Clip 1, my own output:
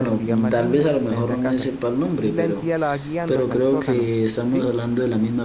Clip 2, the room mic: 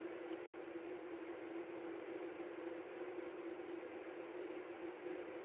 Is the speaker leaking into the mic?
No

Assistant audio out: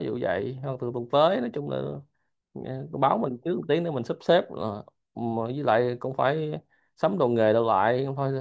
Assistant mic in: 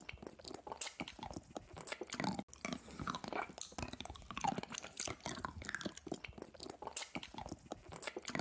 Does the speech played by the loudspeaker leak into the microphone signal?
No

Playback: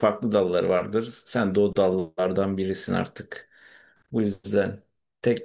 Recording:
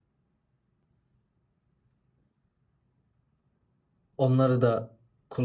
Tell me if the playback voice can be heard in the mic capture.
No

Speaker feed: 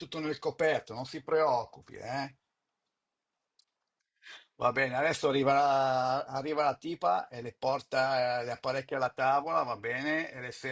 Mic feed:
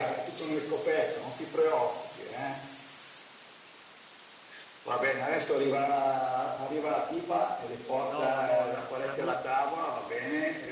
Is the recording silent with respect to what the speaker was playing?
No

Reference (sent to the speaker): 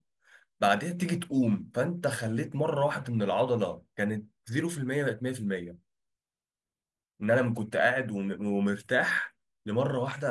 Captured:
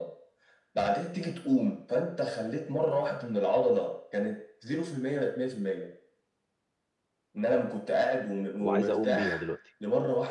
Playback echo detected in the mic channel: Yes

